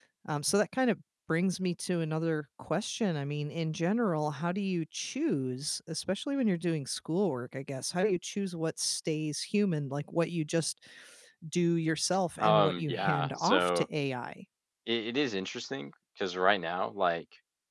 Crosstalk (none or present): present